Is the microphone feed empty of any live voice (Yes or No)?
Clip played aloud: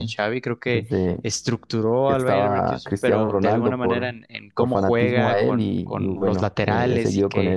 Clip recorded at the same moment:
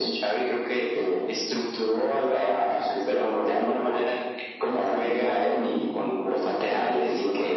Yes